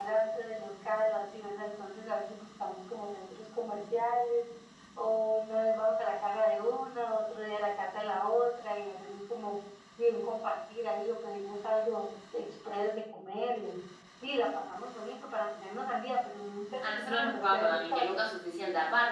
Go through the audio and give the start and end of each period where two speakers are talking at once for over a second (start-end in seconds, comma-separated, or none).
16.8-18.1